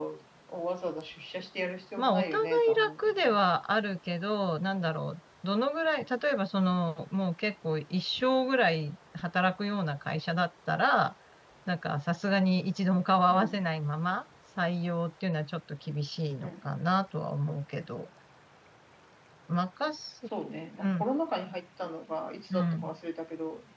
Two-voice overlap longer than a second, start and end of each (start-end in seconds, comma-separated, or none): 2.0-3.2